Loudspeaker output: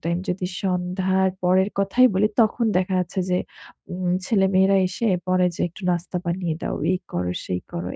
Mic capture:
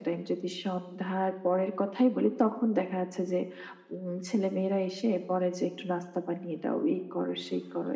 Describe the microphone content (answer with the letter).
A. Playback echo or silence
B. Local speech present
A